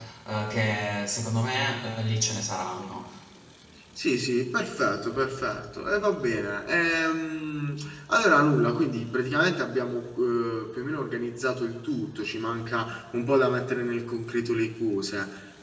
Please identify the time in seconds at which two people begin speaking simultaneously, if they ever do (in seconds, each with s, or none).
none